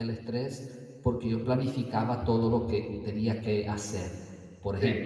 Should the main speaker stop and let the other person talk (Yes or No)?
No